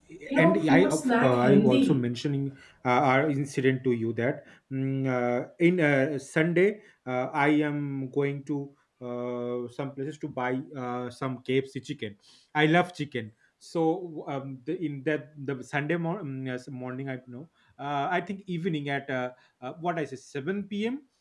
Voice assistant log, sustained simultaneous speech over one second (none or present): present